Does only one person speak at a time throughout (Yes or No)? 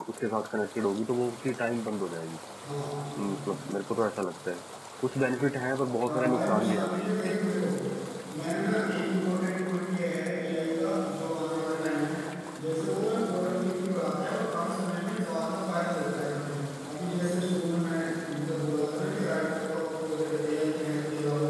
No